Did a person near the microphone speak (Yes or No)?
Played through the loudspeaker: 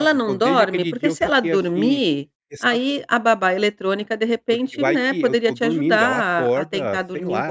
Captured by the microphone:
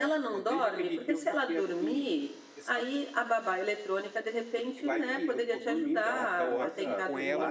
Yes